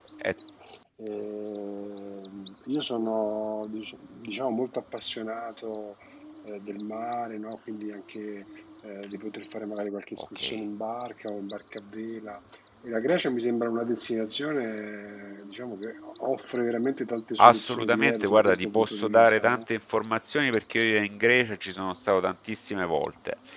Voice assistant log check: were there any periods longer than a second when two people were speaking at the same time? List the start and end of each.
17.4-19.6

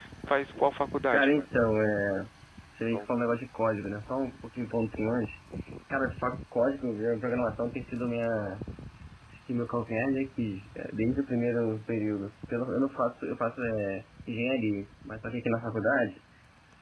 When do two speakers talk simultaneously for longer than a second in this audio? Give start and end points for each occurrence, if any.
none

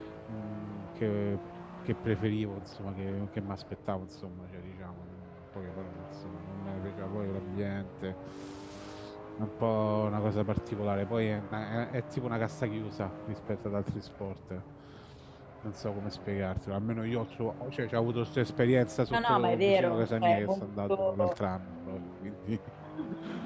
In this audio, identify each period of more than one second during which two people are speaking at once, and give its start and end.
19.1-21.4

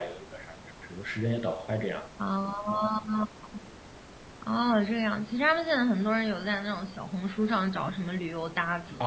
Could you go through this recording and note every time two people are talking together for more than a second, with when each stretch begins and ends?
none

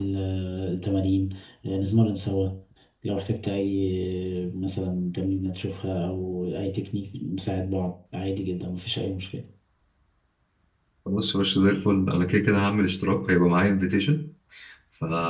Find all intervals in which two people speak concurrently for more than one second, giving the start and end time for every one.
none

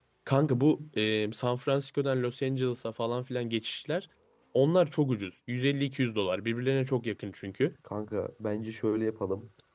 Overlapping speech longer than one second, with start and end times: none

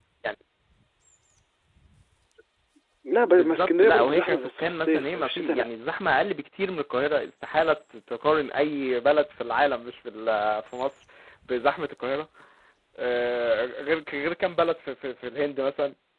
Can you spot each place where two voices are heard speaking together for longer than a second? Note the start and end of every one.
3.3-5.7

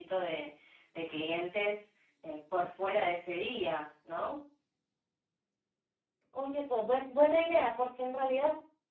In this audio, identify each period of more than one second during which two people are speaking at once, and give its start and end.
none

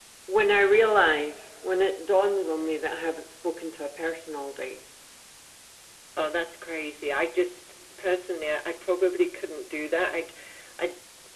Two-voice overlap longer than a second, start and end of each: none

